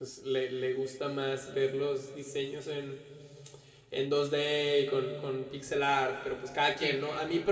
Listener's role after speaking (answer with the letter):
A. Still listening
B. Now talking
A